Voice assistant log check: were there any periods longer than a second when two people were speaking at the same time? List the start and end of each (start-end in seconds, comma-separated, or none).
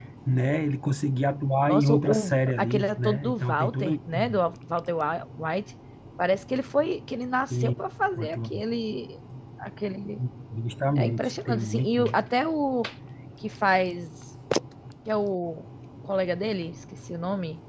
1.7-4.4, 11.0-12.2